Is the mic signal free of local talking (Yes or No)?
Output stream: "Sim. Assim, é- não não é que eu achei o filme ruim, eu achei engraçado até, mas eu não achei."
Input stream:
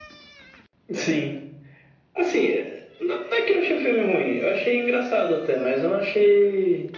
Yes